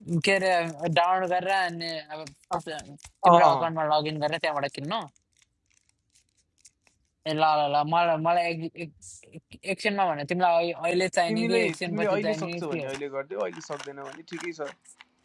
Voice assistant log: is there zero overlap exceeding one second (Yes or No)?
No